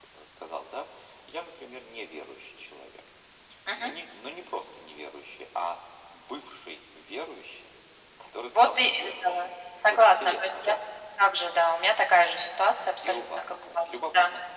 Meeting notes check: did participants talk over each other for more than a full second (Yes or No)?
Yes